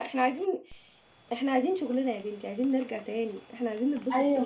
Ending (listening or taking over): taking over